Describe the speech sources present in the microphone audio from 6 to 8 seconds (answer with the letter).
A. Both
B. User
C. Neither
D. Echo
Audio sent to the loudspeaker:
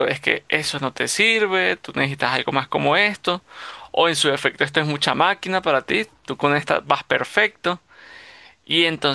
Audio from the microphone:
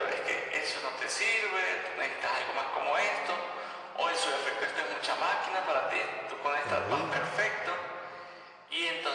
A